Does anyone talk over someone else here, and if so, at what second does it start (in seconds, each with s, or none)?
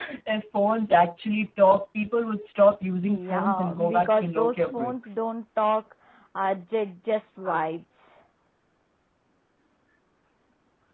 3.1 s